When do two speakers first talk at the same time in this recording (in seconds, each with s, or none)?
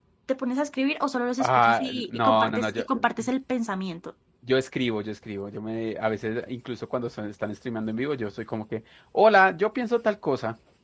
1.4 s